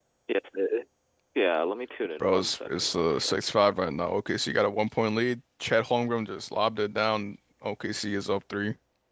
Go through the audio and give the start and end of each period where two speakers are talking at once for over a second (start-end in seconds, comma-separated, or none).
2.2-3.5